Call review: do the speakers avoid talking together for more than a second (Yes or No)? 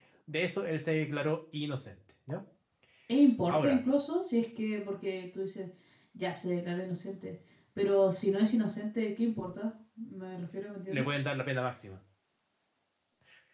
Yes